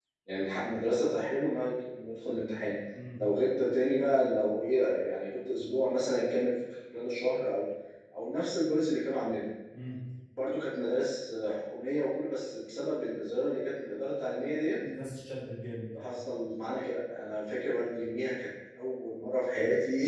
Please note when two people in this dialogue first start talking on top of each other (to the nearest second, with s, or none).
none